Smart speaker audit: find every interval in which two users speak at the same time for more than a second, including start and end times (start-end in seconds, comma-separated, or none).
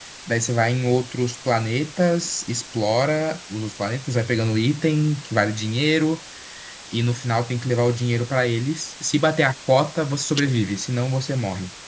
none